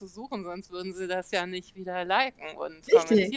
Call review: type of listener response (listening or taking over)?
taking over